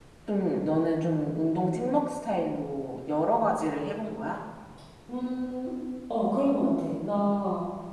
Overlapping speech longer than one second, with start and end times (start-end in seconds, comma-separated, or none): none